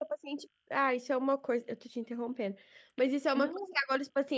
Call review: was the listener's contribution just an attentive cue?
Yes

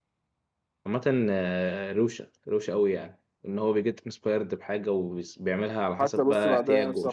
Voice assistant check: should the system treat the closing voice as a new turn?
Yes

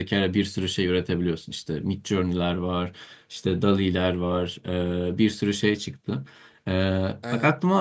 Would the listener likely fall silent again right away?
Yes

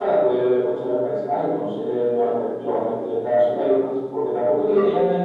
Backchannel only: Yes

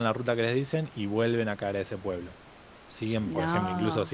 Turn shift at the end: No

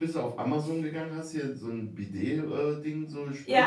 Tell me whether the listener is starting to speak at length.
No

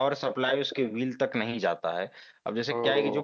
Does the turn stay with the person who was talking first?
Yes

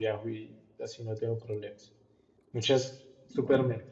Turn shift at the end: No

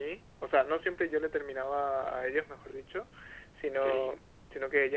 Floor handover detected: No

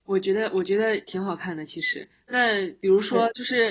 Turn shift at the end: No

